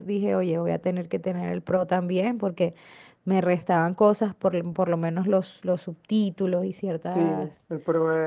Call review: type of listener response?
taking over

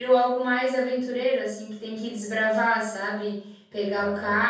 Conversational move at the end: listening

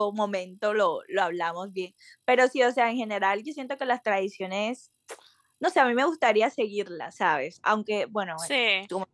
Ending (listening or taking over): listening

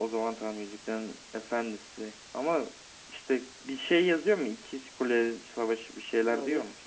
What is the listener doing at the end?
taking over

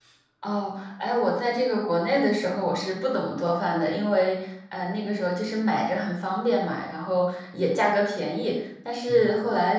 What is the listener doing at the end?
listening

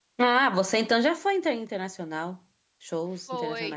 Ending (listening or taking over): taking over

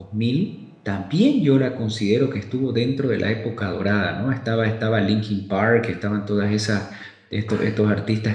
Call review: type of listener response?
listening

